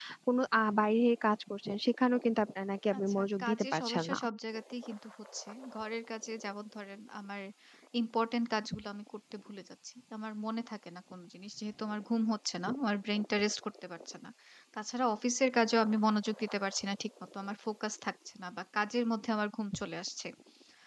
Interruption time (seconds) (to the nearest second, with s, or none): 3 s